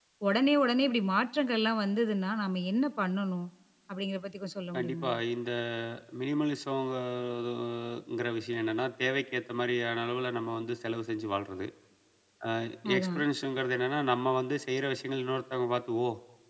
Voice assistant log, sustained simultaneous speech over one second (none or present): none